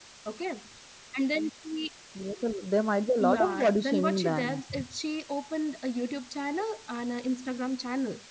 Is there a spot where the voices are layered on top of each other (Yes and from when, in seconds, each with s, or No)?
Yes, from 3.2 s